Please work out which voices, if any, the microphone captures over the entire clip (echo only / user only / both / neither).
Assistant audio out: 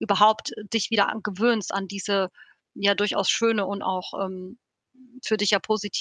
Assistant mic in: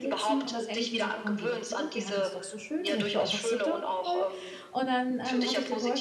both